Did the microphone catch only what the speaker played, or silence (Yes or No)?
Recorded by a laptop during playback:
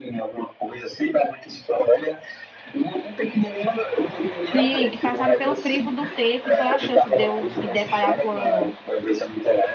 No